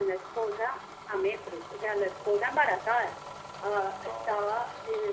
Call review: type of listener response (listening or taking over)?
listening